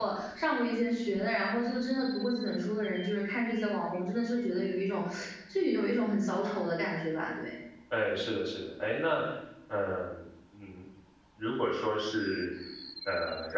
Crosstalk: none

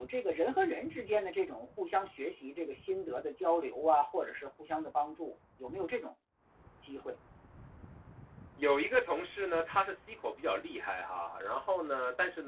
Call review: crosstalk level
none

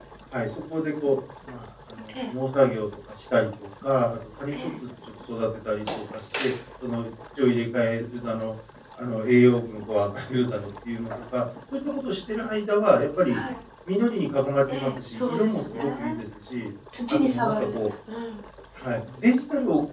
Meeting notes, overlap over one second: present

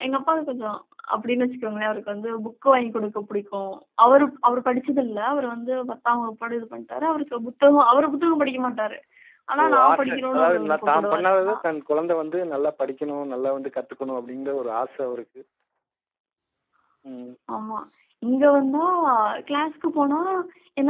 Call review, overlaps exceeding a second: present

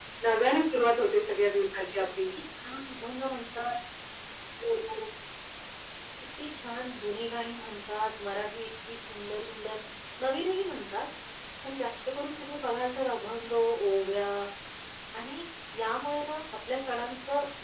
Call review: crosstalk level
none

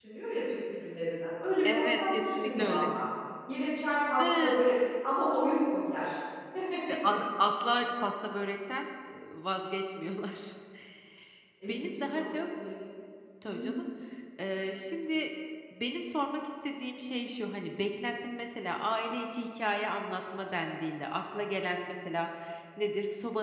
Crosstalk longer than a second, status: present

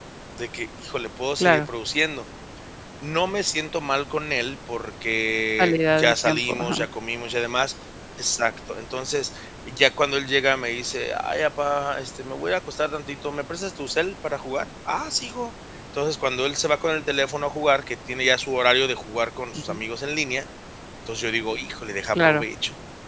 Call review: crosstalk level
present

